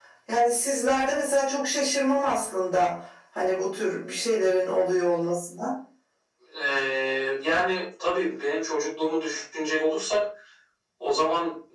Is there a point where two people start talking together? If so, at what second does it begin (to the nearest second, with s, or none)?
none